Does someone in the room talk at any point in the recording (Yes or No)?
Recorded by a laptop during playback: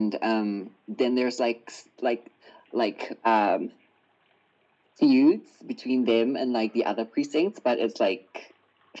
No